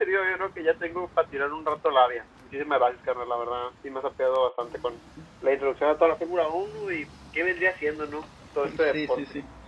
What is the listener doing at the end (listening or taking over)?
taking over